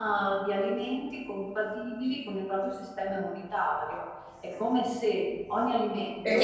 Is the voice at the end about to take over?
Yes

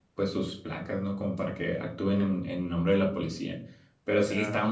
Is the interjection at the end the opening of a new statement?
No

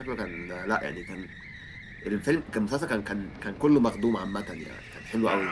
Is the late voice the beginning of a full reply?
Yes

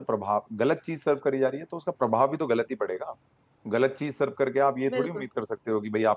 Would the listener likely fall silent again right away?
Yes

